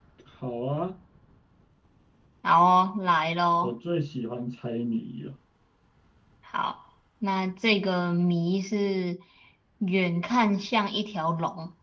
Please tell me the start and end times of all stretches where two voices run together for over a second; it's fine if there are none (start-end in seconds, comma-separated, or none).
none